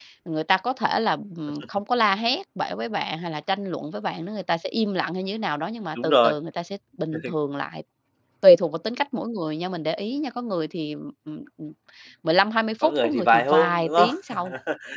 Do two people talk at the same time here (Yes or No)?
Yes